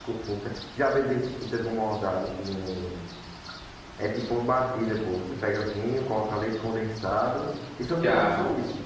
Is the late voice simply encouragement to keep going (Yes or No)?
No